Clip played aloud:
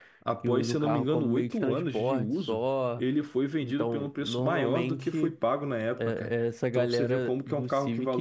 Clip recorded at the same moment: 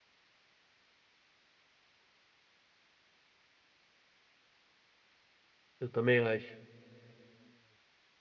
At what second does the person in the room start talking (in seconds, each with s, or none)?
5.8 s